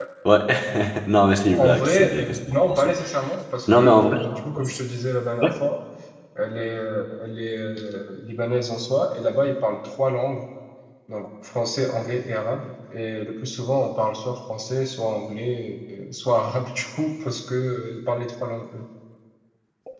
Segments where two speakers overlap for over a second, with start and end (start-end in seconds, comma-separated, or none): 1.5-2.9